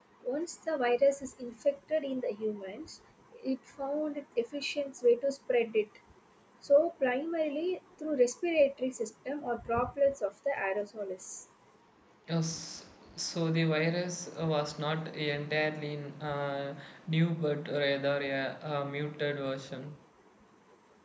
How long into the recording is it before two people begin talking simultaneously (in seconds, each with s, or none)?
none